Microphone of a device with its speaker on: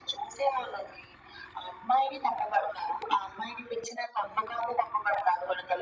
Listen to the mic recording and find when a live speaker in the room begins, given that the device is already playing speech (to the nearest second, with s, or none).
none